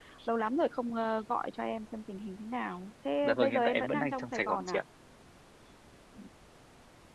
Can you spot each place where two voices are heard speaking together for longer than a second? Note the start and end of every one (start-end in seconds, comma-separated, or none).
3.2-4.8